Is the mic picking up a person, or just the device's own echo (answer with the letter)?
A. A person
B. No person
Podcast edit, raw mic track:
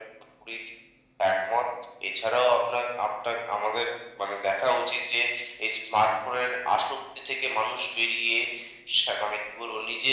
B